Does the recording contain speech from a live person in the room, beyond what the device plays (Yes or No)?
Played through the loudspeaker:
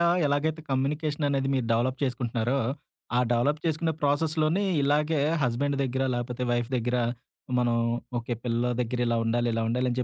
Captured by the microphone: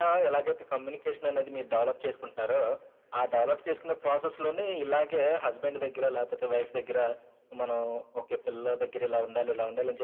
No